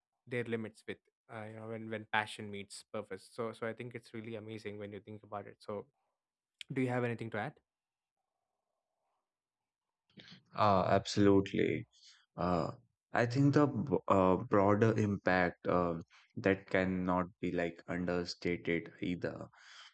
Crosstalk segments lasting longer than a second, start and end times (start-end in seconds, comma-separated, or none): none